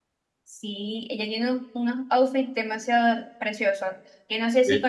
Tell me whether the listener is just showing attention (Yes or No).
Yes